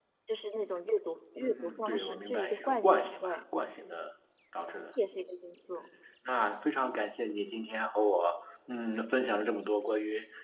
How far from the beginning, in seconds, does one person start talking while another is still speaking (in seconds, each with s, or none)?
1.4 s